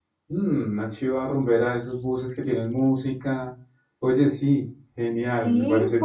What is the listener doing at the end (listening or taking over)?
taking over